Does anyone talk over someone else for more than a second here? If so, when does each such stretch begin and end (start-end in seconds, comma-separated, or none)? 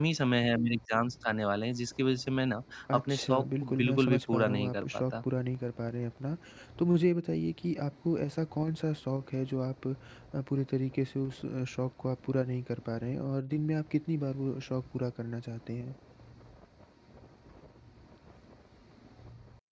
2.9-5.2